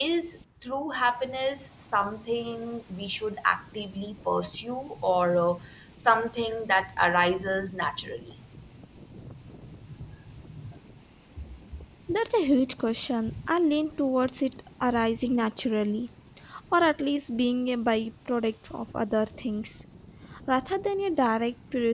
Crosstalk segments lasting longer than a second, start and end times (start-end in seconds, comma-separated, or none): none